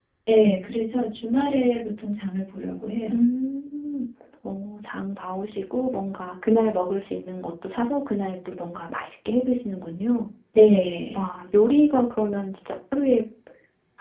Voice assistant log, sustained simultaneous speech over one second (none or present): none